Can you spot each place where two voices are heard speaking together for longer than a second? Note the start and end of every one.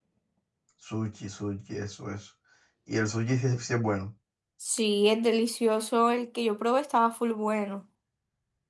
none

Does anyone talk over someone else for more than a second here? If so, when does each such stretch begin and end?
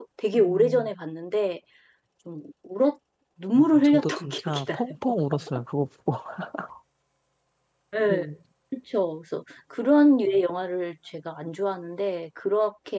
3.6-4.8

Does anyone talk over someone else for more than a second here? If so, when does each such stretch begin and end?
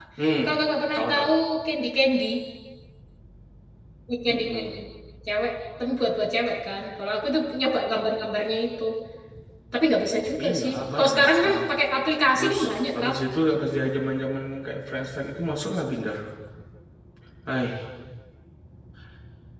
10.4-11.6

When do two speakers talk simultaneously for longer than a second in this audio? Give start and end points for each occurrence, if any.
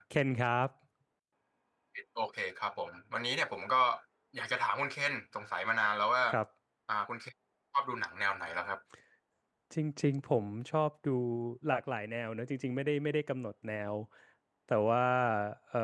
none

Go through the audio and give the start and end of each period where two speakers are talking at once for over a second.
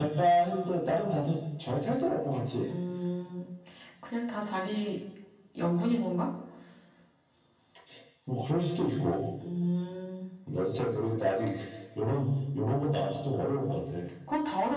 none

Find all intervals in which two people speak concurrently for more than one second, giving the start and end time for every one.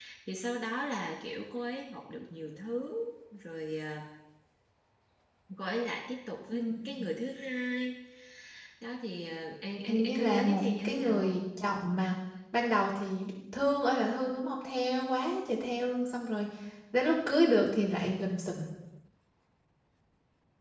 9.8-11.4

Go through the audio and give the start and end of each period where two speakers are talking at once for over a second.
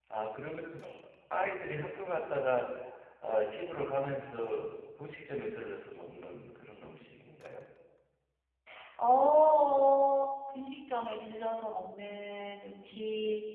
none

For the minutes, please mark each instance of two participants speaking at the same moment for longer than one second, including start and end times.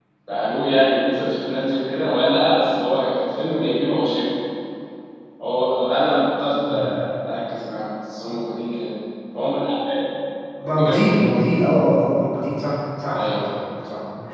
none

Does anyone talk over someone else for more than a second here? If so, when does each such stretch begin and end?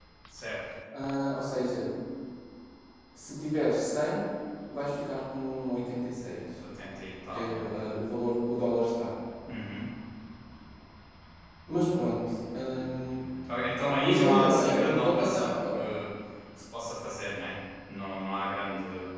14.0-15.6

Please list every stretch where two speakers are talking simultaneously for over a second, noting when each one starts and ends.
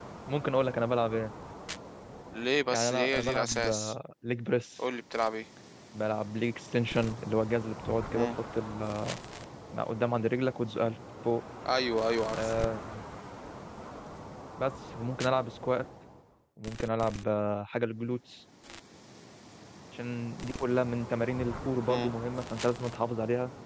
2.7-4.0

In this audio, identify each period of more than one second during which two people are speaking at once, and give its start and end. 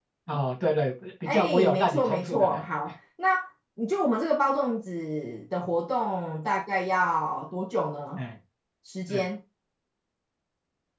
1.2-2.6

